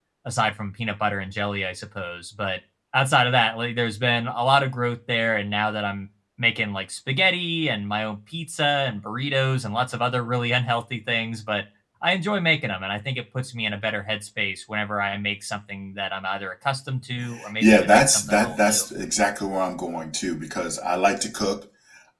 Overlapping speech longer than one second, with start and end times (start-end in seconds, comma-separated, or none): 17.6-18.8